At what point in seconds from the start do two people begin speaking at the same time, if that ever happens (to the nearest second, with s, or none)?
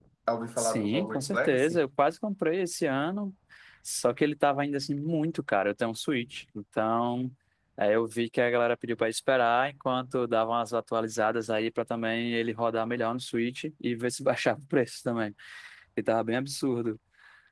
1 s